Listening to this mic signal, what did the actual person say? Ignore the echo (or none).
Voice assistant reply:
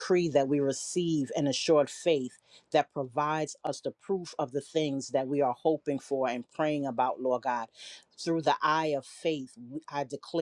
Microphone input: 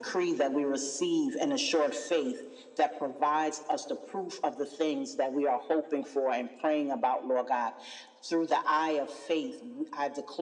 none